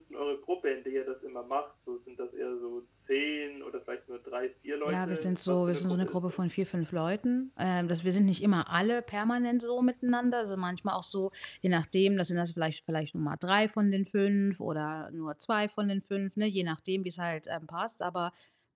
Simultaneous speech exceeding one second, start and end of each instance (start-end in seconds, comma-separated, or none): 4.8-6.5